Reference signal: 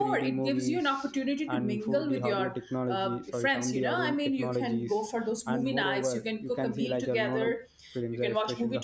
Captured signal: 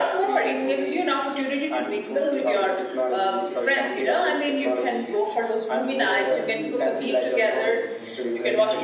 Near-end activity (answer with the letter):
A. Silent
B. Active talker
B